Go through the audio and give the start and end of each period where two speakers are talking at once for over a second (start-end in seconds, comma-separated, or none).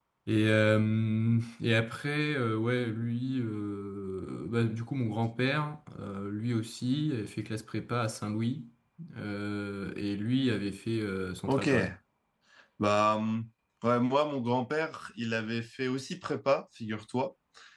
none